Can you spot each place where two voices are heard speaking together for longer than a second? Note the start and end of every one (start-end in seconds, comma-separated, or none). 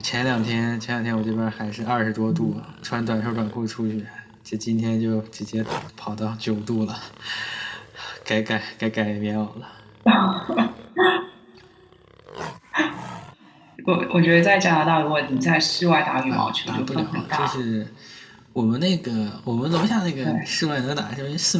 16.3-17.5